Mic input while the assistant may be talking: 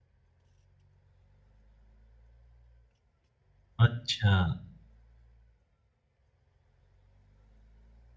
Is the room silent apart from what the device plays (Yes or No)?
No